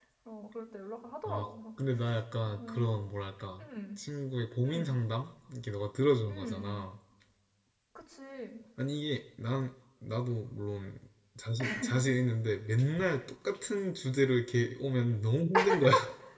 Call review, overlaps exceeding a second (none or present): none